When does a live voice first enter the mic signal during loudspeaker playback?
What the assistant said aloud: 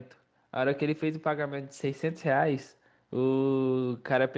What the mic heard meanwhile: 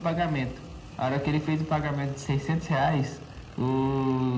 none

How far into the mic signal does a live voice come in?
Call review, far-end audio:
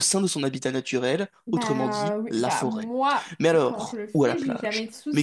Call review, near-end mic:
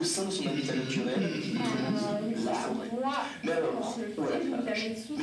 0.5 s

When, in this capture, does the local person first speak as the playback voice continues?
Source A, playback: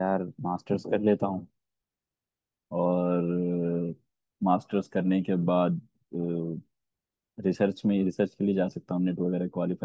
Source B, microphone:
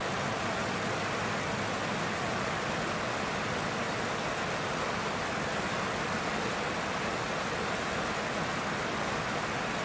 none

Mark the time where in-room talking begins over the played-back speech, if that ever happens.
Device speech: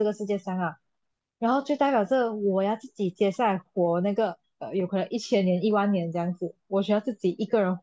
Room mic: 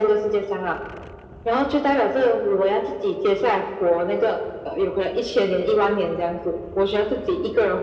none

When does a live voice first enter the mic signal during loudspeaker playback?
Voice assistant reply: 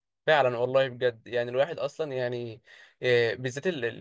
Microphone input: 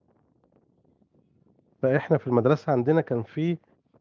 1.8 s

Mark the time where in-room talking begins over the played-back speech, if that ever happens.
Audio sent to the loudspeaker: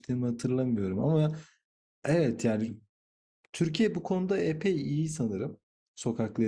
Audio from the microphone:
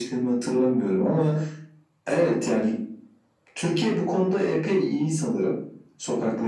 none

